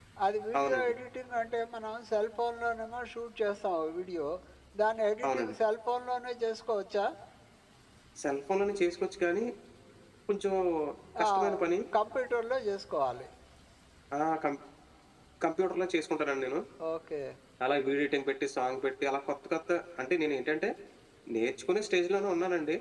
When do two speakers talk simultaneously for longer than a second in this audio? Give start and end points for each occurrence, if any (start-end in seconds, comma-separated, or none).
none